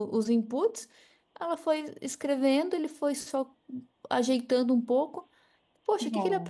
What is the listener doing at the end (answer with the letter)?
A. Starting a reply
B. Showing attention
B